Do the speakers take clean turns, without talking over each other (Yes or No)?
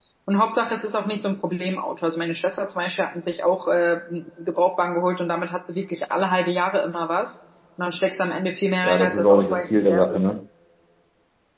No